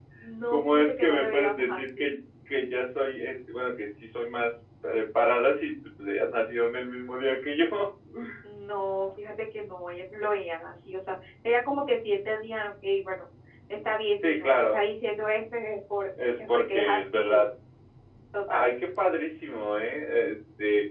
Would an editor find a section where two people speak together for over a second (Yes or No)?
Yes